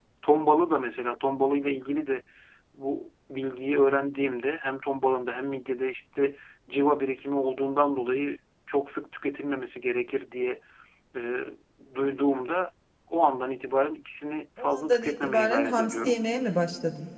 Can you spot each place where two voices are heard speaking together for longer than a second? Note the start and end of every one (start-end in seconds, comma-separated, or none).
14.6-16.2